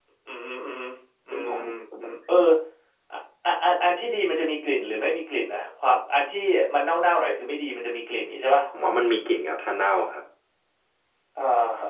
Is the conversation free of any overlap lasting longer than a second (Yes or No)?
Yes